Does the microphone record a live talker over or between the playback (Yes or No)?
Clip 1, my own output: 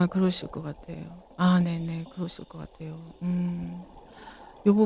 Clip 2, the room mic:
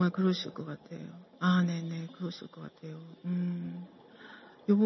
No